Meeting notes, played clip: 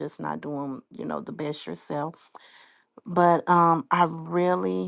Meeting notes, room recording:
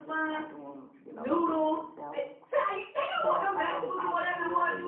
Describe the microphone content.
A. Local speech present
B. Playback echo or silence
A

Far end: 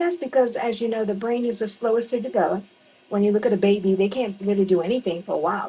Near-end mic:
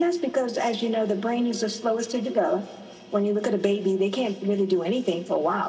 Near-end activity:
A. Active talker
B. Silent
B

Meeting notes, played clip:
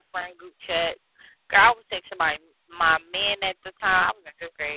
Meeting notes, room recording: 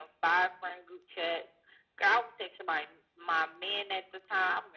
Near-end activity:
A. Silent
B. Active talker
A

